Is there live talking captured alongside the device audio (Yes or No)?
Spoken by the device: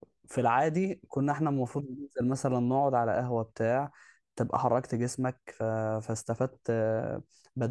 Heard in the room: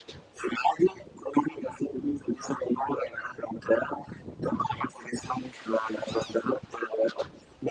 No